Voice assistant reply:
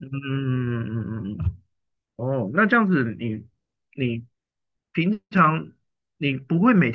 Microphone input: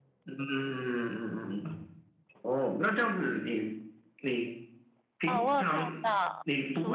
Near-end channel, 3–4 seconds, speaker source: echo only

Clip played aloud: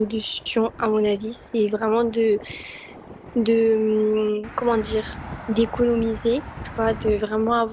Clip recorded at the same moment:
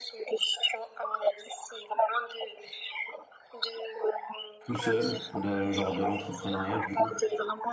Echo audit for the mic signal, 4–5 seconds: both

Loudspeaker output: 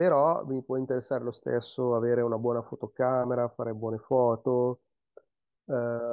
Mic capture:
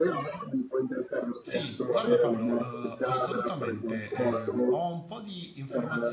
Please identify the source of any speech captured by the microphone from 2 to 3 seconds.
both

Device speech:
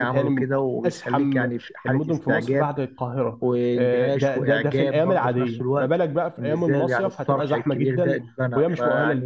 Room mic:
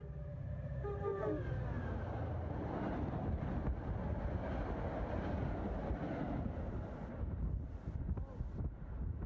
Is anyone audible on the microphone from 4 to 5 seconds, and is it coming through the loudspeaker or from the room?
neither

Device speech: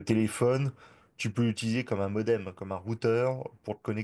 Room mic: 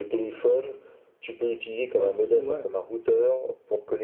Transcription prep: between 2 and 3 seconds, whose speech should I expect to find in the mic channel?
both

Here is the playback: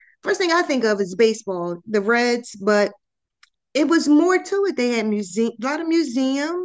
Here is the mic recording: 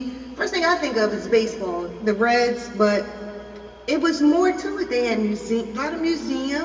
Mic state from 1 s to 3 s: echo only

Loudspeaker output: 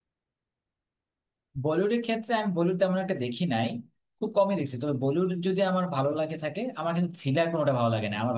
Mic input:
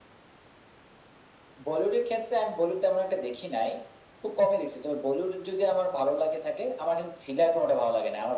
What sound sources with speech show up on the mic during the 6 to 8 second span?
echo only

